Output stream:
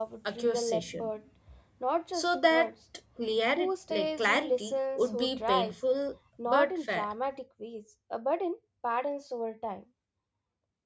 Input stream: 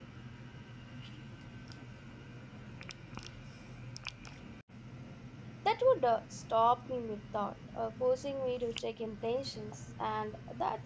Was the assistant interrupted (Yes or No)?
Yes